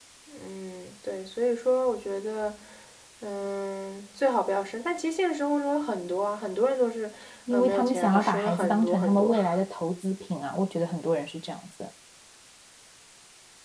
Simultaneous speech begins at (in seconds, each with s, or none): 7.5 s